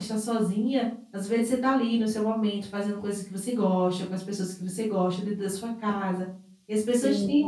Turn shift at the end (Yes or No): No